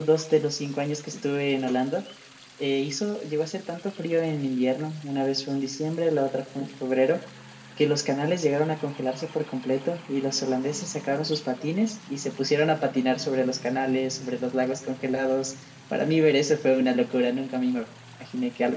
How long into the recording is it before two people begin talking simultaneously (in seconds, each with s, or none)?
none